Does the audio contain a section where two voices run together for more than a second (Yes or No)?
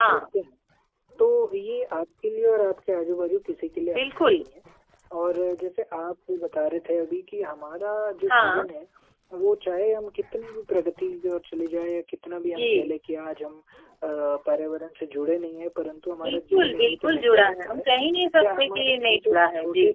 Yes